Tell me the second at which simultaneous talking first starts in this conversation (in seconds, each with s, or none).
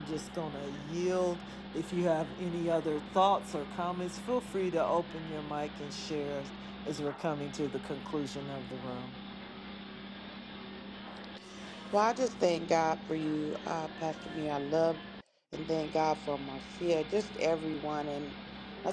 none